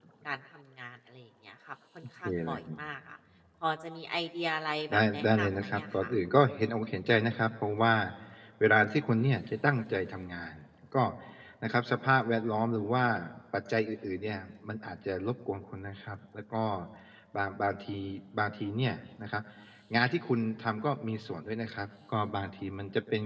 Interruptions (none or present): present